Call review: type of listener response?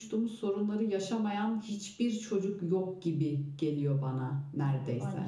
taking over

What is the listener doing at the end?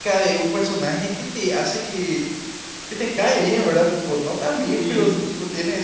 listening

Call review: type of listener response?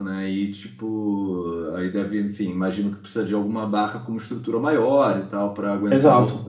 taking over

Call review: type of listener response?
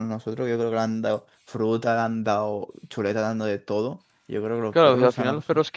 taking over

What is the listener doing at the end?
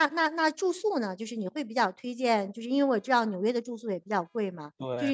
listening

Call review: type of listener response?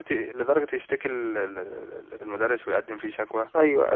listening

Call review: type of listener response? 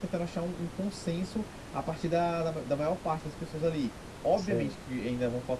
listening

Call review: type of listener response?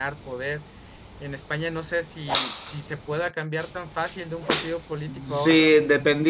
taking over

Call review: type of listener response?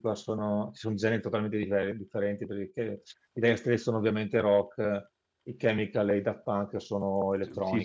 taking over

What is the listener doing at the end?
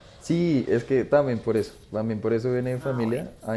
listening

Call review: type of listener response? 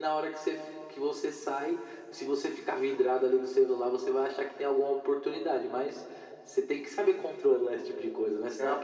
taking over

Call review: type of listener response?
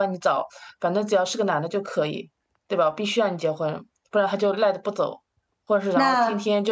listening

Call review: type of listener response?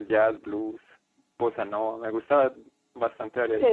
taking over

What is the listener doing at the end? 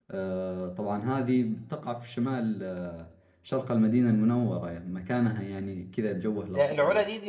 taking over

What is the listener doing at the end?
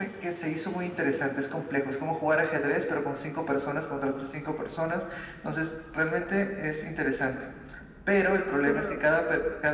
listening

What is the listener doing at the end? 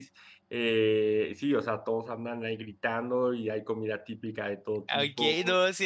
taking over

